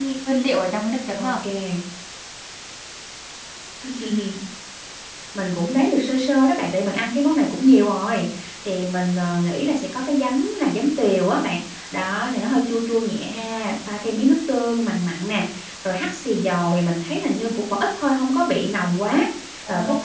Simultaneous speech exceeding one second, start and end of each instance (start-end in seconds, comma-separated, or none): none